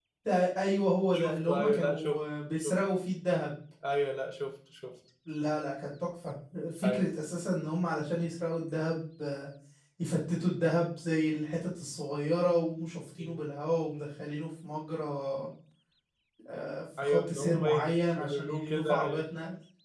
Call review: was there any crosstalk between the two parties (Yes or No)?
Yes